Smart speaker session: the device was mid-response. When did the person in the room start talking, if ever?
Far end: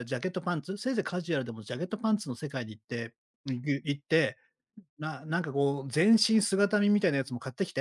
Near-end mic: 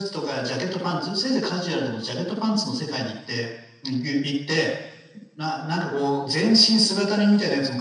none

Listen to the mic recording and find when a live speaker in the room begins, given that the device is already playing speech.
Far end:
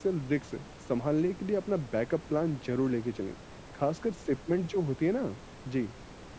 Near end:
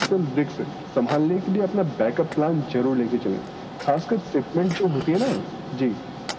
none

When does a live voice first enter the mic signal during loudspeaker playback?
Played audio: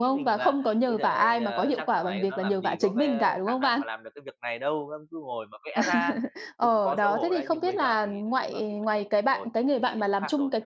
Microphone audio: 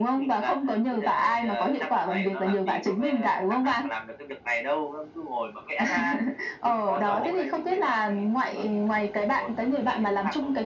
6.9 s

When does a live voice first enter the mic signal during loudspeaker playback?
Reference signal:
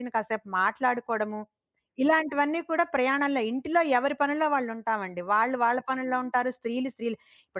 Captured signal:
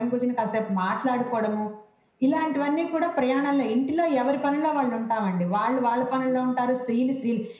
none

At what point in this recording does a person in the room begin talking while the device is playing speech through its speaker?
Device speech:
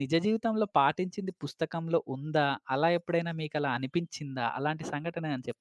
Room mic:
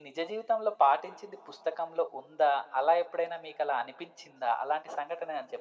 none

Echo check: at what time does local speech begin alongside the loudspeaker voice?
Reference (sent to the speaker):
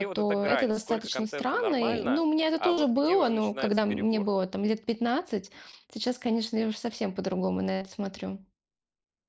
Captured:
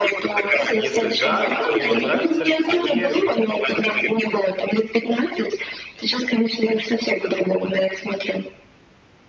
0.7 s

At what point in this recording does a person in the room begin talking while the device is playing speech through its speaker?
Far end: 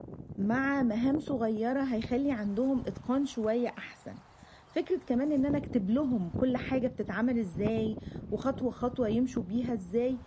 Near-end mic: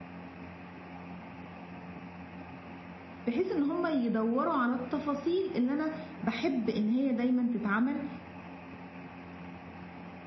3.3 s

